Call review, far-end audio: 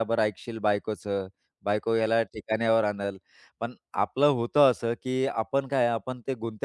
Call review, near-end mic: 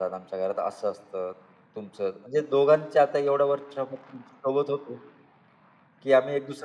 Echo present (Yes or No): No